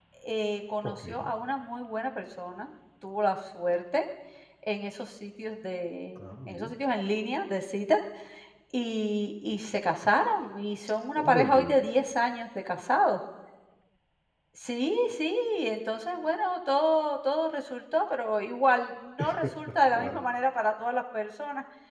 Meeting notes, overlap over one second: none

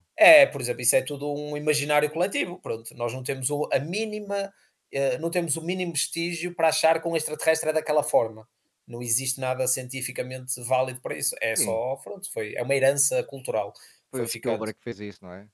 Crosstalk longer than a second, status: none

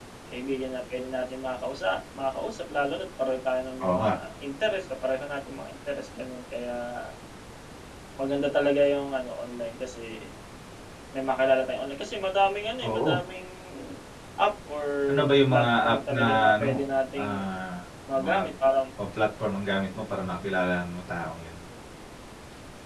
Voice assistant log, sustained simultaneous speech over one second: present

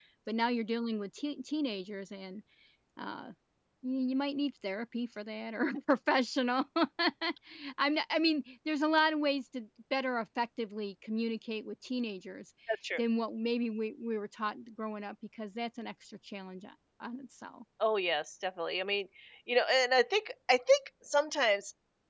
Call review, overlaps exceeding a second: none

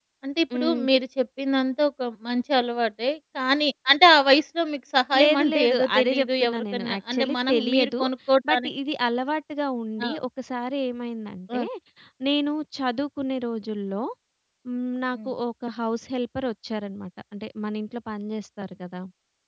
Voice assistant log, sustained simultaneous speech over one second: present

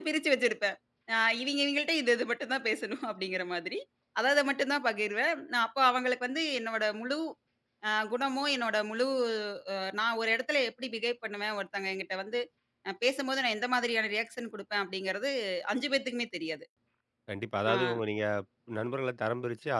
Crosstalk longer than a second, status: none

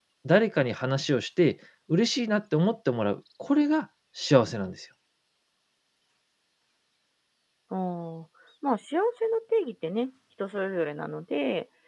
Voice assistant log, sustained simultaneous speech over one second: none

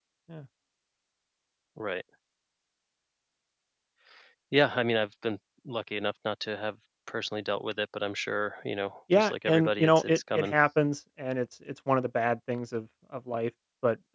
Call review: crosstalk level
present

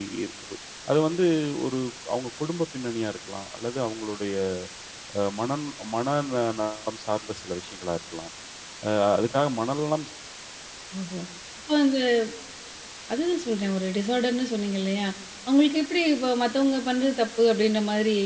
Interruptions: none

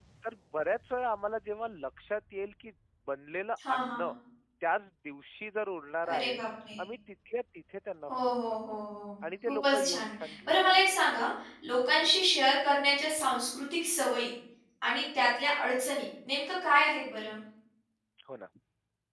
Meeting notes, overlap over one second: present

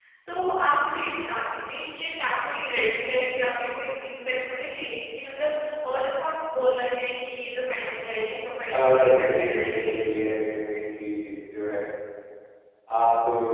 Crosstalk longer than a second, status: present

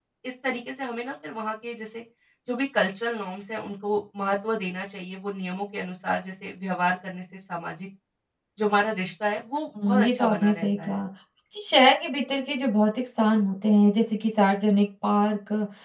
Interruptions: present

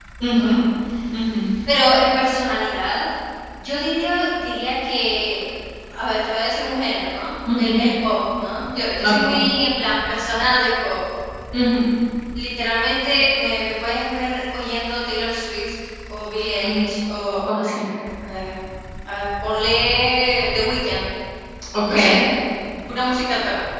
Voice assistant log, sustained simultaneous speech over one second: none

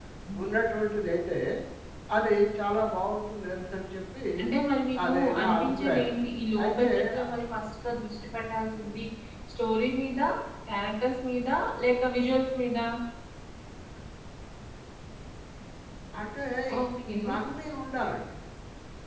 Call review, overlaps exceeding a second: present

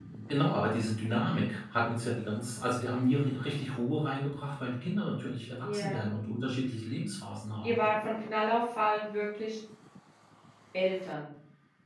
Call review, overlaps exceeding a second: none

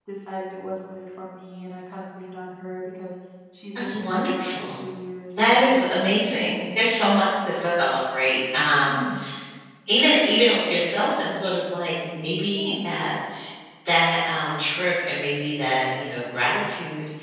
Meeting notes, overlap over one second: present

